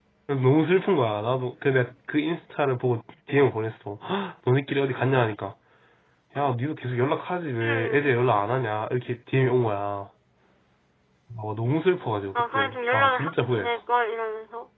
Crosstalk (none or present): present